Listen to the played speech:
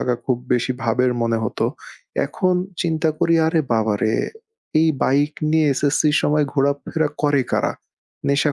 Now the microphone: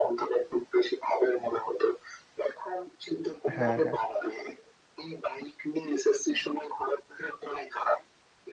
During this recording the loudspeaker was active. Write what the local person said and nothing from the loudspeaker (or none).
হ্যাঁ, হ্যাঁ।